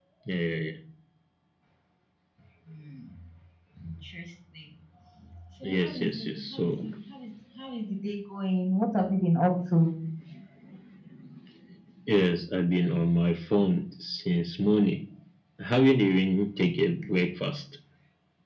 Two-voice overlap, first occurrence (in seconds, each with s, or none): 5.6 s